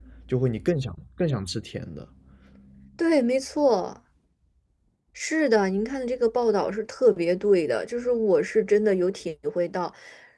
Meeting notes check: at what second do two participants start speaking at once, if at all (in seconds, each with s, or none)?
none